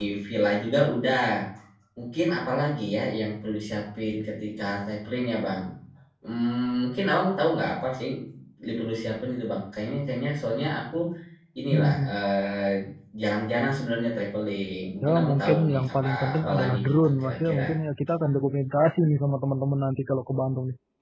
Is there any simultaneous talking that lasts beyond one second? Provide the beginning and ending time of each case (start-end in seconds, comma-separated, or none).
15.0-17.6